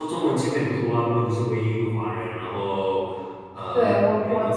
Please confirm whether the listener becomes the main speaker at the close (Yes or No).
Yes